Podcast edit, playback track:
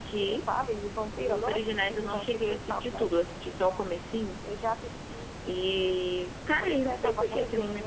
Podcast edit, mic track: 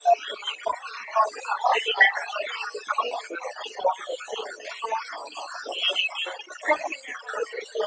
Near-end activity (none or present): none